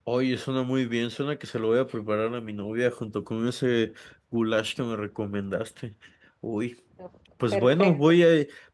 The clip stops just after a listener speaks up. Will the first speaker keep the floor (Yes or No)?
Yes